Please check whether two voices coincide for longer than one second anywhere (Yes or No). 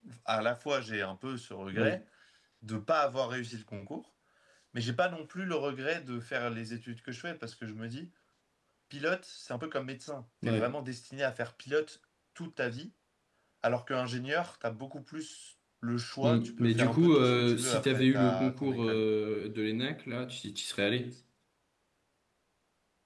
Yes